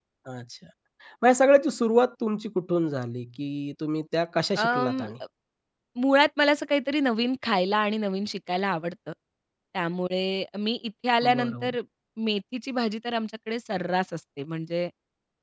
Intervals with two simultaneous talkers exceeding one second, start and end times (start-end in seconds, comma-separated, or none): none